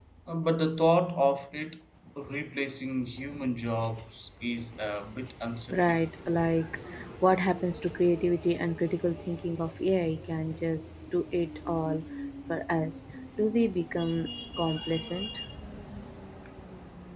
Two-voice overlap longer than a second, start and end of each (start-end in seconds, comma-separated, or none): none